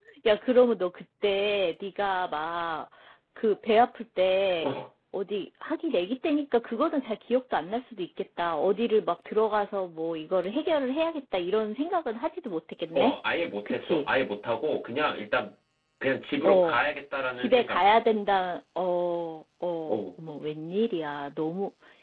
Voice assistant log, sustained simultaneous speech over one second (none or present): none